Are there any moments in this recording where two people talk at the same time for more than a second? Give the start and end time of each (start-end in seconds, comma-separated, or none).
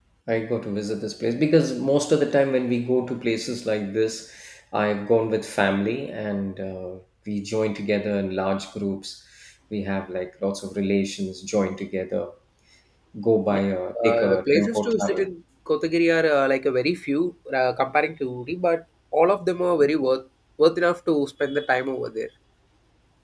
14.0-15.3